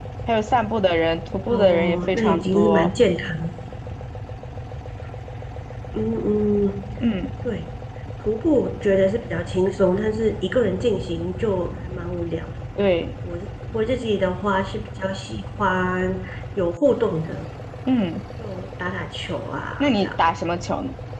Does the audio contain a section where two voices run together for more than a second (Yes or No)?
Yes